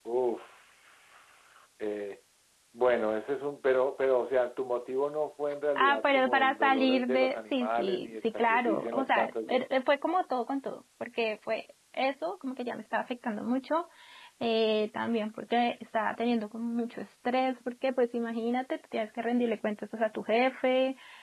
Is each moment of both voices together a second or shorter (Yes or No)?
No